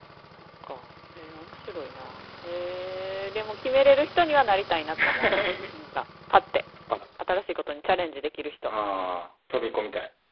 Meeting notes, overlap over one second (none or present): none